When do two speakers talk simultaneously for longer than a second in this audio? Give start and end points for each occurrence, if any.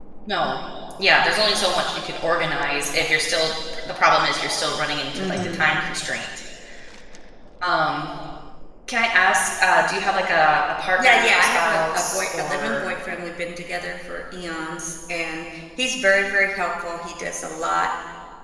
11.0-12.8

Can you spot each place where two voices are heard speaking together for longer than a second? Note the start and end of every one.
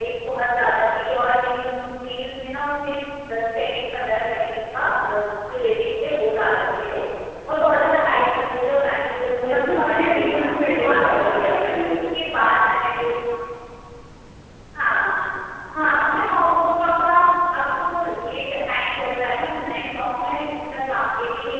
9.4-11.6

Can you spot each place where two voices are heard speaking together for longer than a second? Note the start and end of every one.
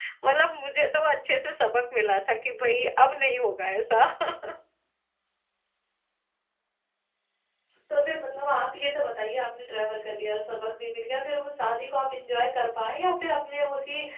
none

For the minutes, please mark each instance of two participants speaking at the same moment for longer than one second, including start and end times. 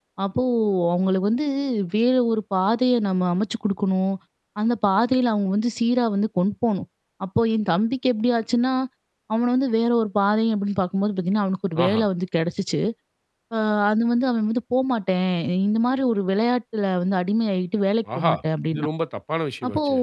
none

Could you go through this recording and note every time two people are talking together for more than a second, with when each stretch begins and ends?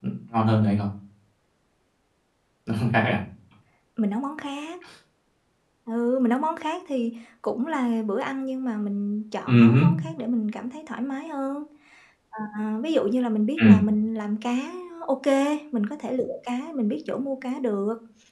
none

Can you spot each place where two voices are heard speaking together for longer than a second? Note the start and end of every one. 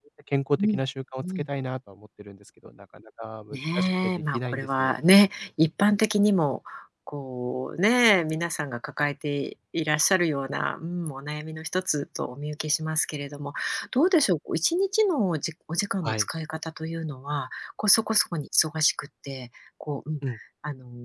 3.5-4.9

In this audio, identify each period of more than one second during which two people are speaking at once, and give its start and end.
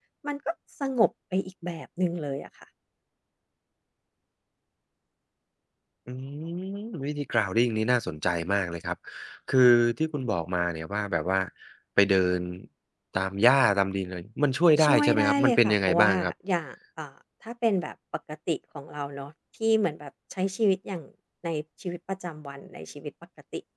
14.8-16.1

